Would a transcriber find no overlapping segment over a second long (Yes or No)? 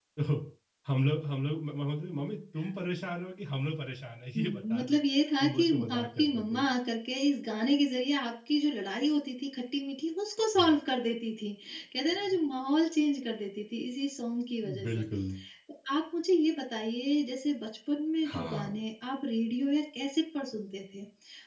No